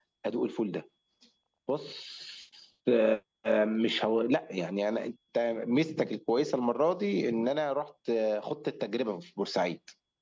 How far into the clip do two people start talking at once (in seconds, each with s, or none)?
none